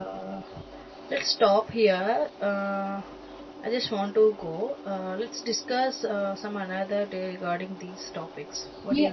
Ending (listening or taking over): taking over